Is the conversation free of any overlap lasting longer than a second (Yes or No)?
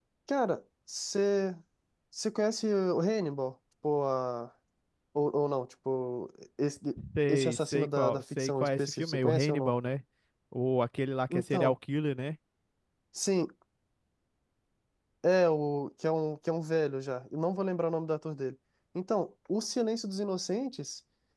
No